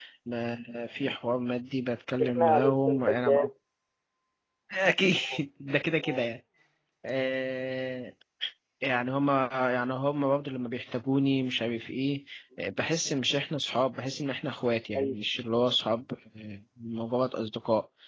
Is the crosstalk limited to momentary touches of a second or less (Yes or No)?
No